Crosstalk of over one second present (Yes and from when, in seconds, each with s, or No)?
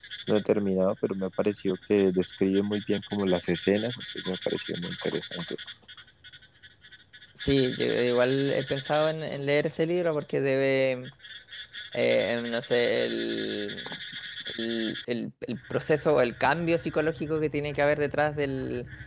No